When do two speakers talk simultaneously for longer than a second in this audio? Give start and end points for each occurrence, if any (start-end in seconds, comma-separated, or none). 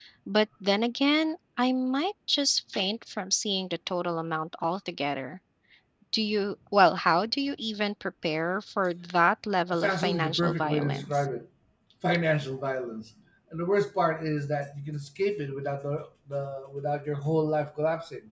9.7-11.2